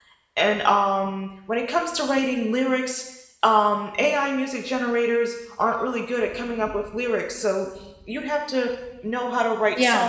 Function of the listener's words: listening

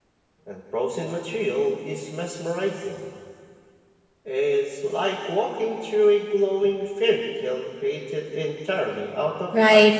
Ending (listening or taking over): taking over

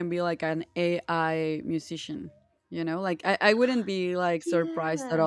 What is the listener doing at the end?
listening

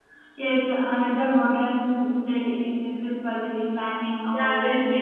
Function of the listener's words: taking over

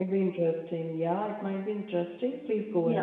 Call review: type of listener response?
taking over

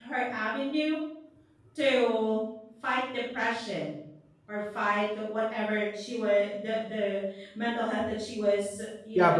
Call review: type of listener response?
taking over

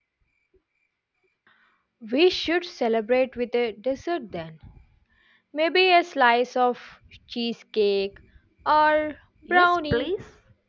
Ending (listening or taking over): taking over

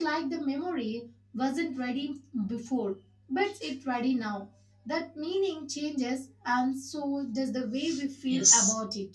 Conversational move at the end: taking over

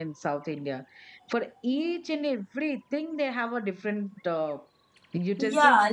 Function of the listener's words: taking over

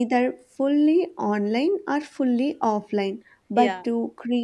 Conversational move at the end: listening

